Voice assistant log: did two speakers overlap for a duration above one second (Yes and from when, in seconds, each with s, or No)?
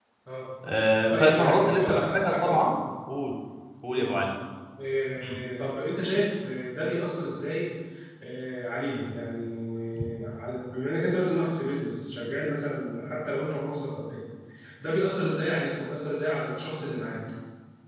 Yes, from 1.1 s